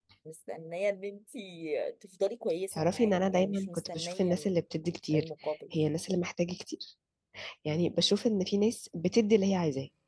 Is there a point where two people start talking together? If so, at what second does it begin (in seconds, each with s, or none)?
2.7 s